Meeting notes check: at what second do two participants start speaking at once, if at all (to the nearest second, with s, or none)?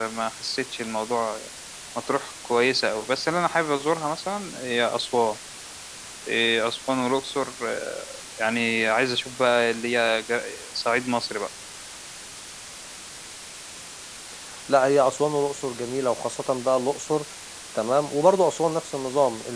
none